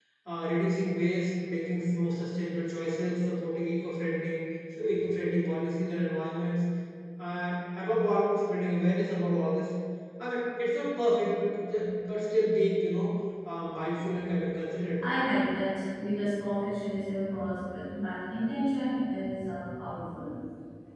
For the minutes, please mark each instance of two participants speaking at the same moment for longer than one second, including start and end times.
none

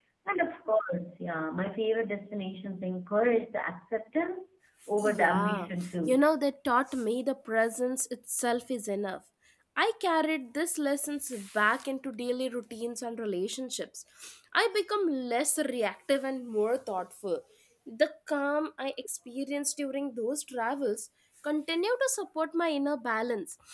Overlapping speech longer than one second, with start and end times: 5.0-6.2

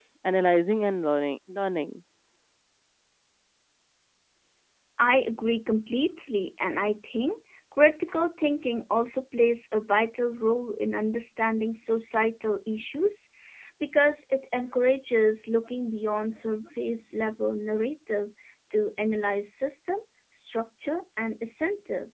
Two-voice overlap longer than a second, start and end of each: none

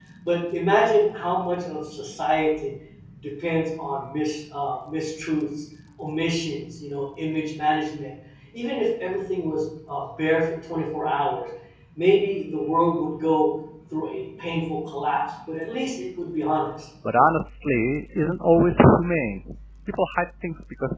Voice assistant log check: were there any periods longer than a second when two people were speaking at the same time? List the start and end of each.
none

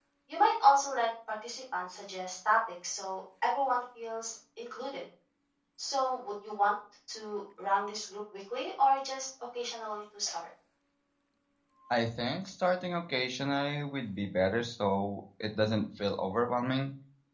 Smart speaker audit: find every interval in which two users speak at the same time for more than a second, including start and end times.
none

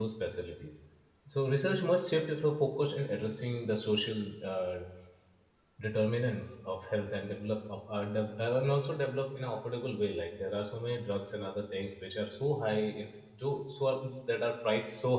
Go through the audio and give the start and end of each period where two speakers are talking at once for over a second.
none

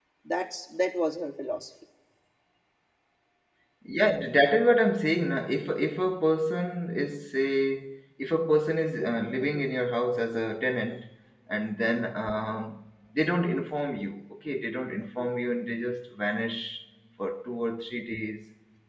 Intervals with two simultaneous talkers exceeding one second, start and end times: none

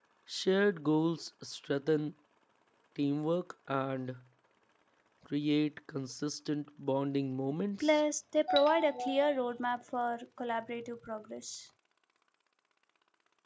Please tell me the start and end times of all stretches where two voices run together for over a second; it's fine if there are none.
none

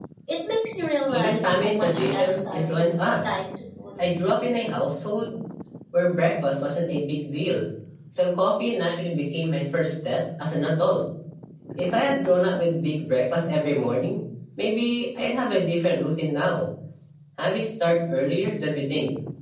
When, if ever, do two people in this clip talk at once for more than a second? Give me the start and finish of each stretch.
1.1-3.4

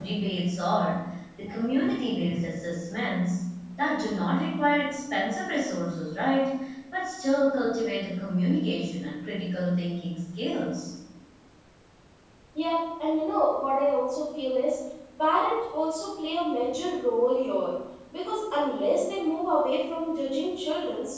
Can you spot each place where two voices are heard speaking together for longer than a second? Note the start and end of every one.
none

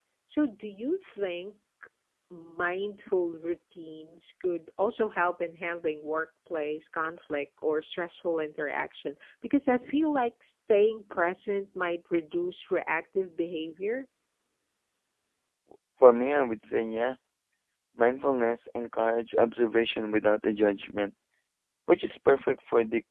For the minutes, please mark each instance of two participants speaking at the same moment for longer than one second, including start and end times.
none

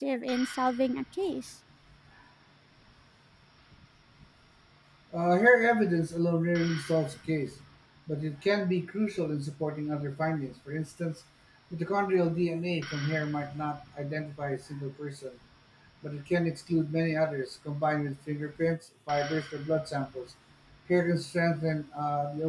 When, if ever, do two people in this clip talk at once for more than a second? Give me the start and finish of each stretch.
none

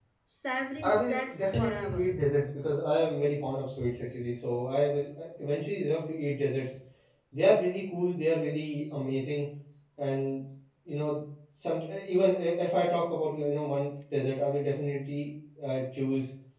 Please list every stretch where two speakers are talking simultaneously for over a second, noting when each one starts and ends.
0.8-2.0

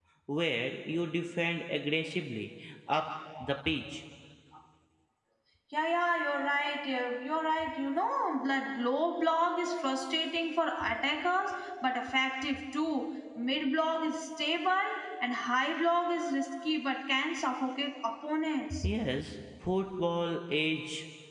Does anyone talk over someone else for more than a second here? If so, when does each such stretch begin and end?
none

